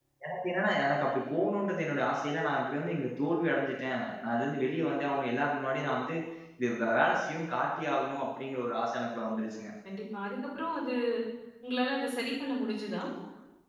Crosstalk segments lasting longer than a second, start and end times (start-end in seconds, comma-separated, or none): none